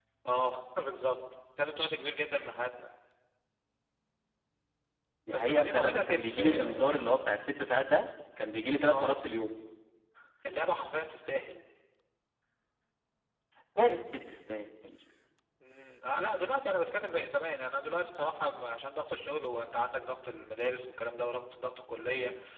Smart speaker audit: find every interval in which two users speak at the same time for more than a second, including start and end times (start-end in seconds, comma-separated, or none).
5.3-7.3